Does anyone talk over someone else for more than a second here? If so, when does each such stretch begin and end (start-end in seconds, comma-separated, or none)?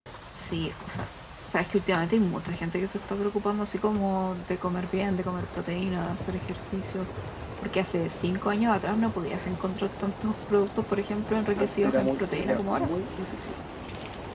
11.6-12.9